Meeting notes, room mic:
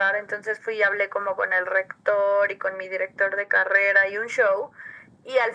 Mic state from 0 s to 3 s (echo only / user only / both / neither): echo only